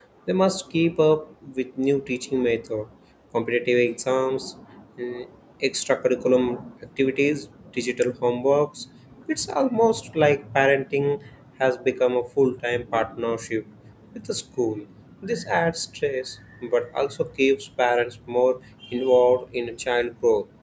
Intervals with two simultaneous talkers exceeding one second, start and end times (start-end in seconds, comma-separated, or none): none